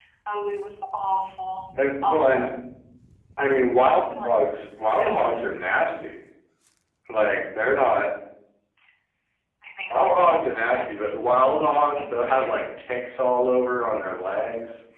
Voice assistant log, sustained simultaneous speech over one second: present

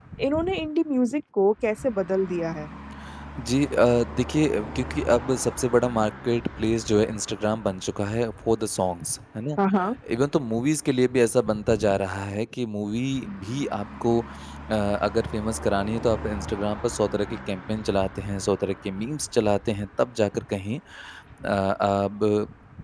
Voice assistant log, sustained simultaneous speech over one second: none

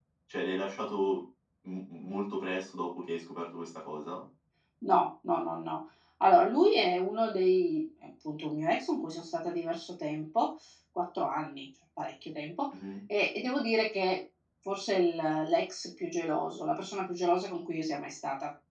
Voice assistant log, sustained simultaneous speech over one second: none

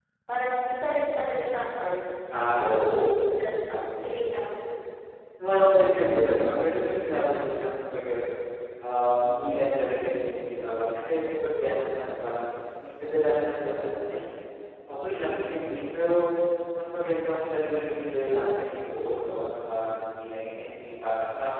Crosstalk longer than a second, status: none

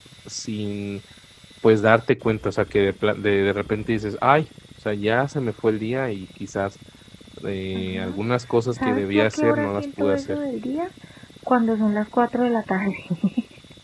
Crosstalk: present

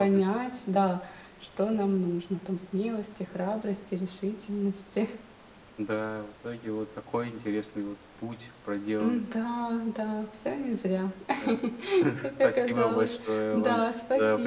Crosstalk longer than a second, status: present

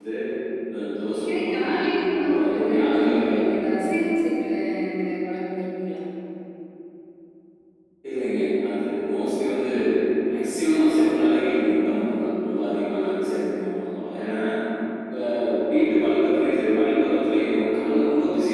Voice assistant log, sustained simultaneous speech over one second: present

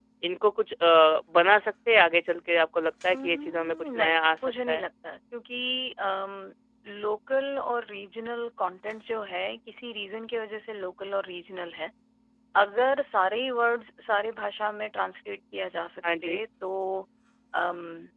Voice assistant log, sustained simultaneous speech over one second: present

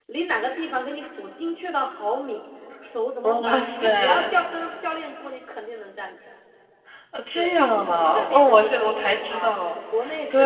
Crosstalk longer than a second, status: present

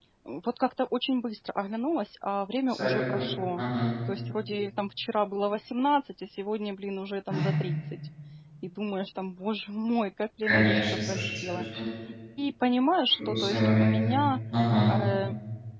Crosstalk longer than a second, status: present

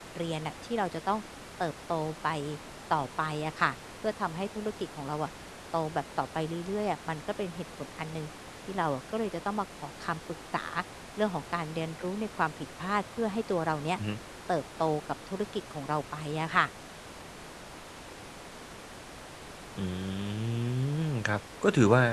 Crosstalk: none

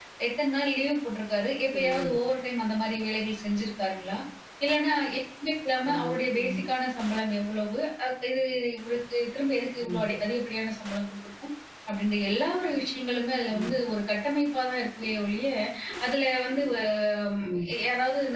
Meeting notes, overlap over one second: none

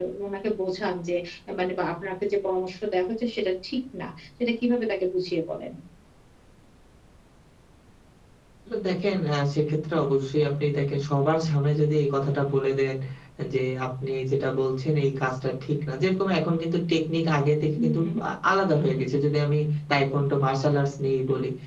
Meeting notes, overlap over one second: none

